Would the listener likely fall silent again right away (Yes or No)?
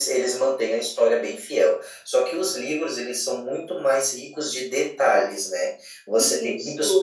Yes